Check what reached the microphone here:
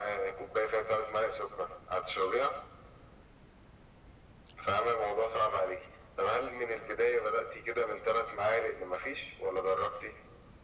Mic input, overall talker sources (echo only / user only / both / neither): echo only